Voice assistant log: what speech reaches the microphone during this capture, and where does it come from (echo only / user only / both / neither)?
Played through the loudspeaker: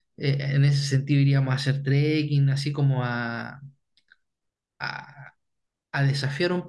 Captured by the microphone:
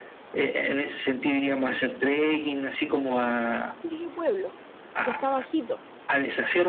both